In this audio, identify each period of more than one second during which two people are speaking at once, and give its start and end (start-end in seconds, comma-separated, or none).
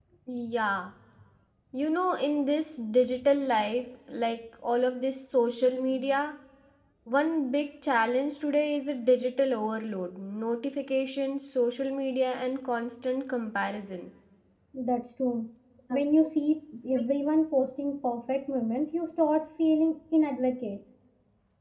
none